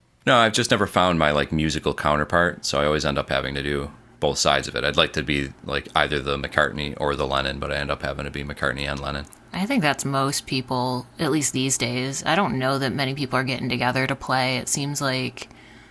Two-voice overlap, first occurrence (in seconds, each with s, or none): none